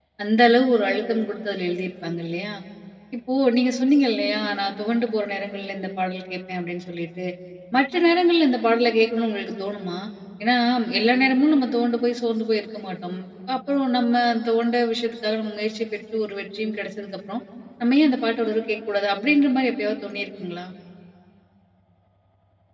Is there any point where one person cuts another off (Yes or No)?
No